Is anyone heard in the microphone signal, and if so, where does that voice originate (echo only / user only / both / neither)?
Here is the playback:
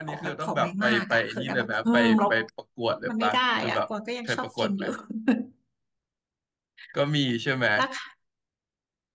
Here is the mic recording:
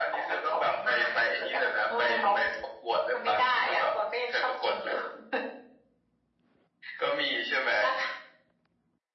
echo only